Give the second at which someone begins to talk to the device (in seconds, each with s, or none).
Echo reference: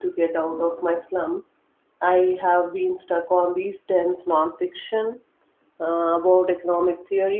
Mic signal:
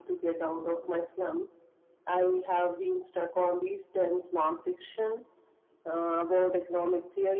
none